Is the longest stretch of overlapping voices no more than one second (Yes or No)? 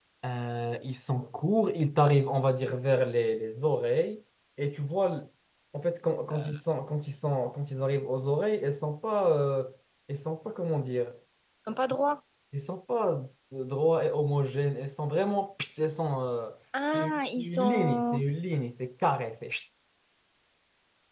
No